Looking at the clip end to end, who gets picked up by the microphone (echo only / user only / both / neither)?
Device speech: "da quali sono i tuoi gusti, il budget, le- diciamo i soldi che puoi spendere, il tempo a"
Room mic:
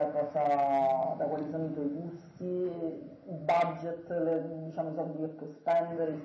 echo only